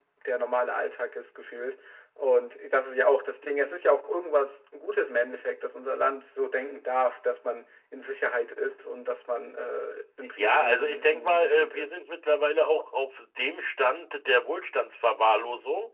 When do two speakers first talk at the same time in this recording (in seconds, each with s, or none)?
10.4 s